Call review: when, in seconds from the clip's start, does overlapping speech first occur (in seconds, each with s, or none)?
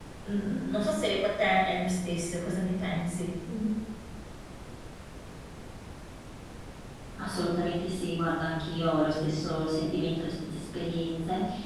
none